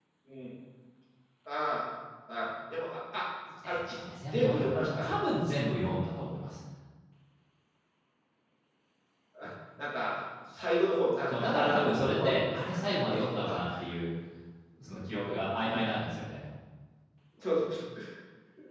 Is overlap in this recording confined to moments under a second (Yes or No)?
No